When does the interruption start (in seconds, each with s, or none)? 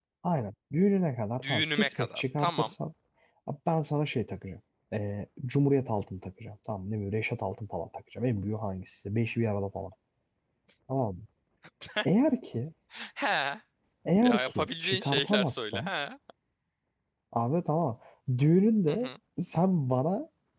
1.5 s